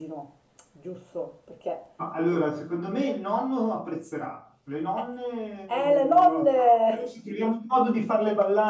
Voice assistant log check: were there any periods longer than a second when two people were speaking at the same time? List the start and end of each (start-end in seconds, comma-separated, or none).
5.7-7.0